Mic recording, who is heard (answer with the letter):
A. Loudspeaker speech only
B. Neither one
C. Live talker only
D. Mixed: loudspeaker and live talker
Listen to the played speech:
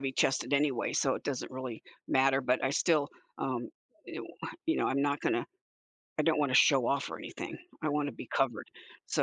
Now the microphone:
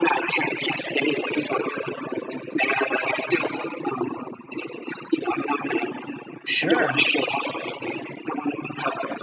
D